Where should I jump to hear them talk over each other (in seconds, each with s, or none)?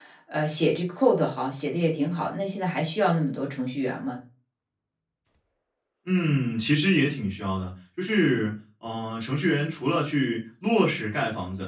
none